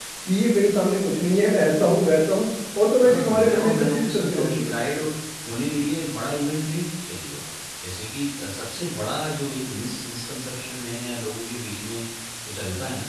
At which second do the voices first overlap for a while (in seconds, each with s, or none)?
3.0 s